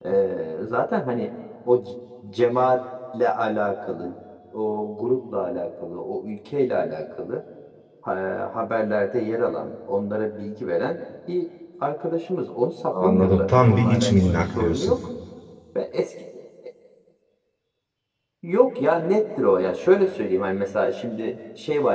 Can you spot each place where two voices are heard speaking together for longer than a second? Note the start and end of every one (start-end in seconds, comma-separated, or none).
12.9-15.0